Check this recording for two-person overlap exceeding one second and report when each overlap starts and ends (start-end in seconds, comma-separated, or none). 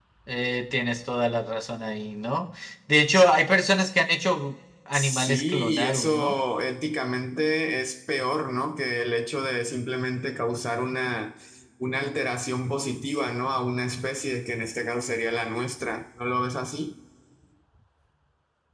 4.9-6.4